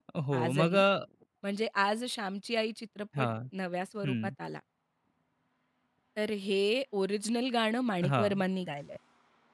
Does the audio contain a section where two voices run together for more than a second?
No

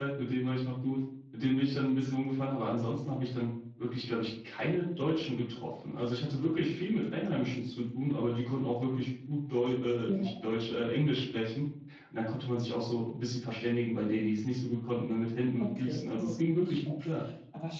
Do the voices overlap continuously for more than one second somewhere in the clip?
Yes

